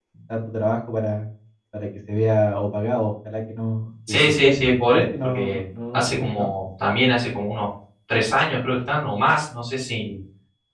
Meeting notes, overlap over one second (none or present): present